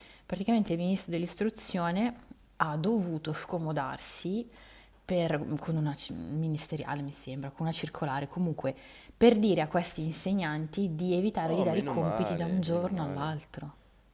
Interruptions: present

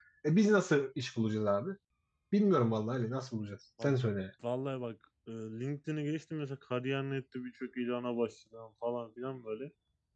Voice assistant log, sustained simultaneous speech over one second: none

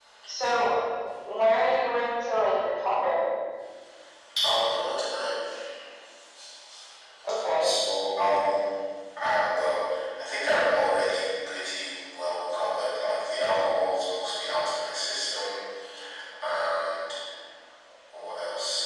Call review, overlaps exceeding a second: none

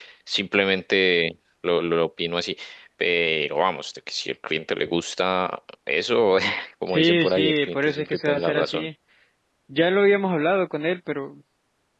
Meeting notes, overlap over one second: present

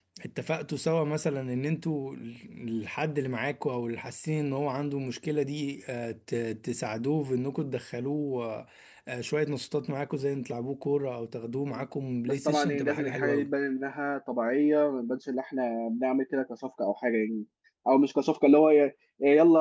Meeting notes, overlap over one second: present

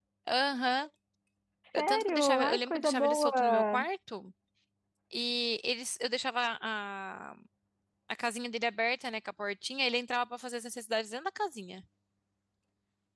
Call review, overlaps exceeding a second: present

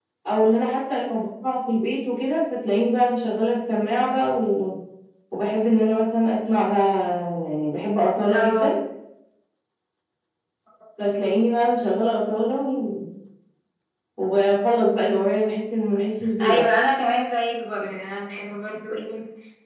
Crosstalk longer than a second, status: none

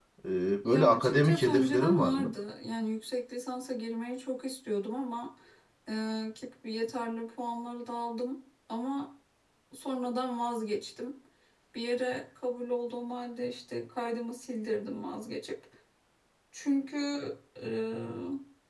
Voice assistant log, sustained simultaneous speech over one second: present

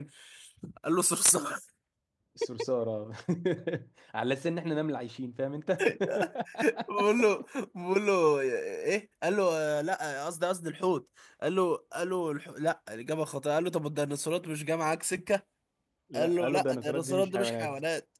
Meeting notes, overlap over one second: present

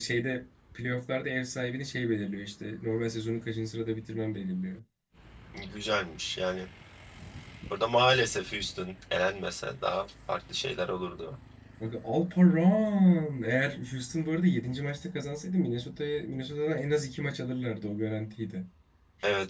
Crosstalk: none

